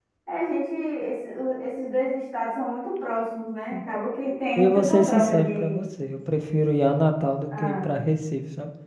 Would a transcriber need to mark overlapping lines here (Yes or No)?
Yes